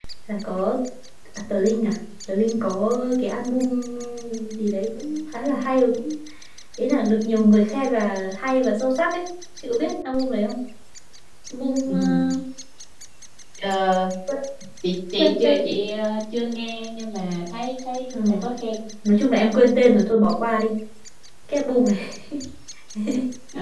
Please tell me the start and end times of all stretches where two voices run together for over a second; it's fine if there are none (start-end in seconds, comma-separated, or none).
none